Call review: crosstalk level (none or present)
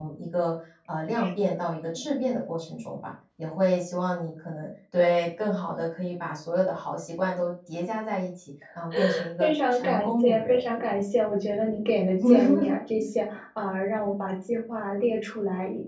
present